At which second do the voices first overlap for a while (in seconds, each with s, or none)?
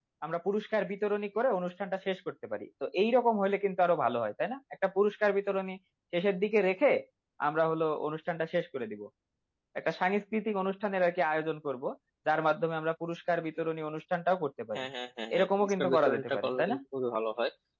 15.3 s